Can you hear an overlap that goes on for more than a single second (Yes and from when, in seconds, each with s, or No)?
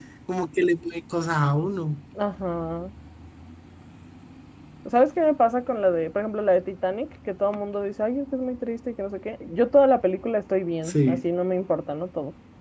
No